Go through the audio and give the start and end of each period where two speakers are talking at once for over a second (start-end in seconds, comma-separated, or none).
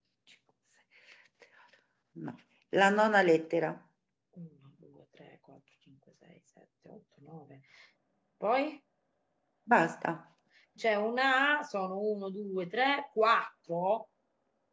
none